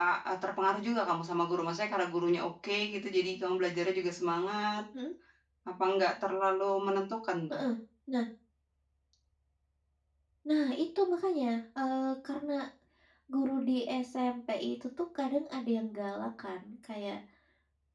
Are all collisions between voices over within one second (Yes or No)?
Yes